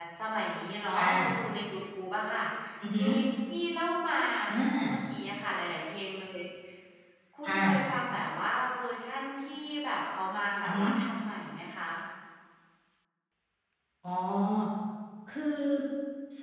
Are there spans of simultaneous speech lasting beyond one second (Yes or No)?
No